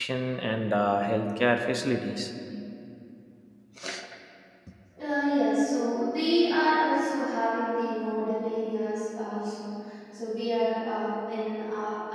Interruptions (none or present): none